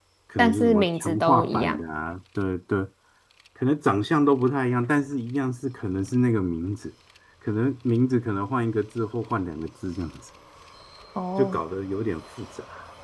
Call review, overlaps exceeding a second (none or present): present